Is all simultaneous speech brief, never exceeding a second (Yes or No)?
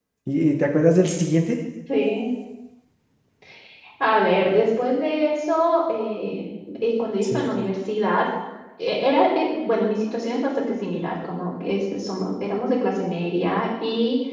Yes